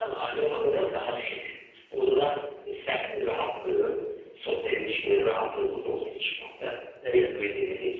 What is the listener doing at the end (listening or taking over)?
listening